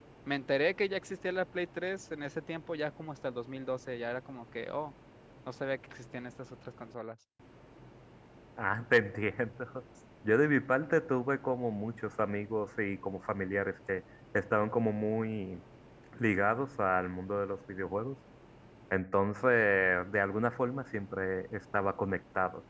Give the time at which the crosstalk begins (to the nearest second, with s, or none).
none